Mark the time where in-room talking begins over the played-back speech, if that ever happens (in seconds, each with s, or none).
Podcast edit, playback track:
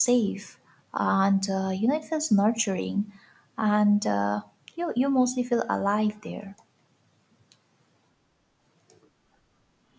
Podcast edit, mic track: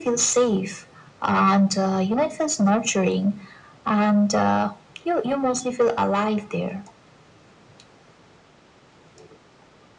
none